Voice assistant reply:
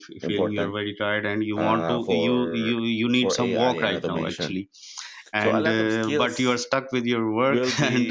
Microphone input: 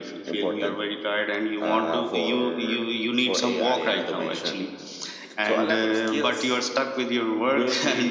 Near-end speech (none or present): none